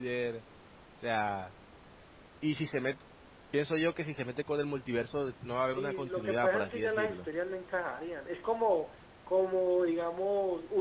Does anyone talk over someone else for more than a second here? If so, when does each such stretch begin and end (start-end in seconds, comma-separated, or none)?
5.5-7.3